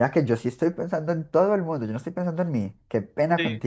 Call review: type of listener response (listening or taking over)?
taking over